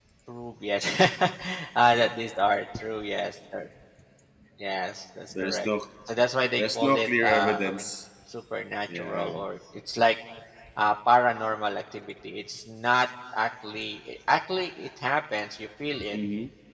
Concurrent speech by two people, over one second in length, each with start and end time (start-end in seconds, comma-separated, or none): 6.6-7.9